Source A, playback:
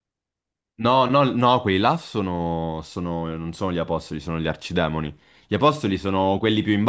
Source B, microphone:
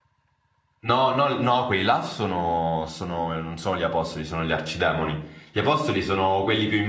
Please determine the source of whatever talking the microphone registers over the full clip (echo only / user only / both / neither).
echo only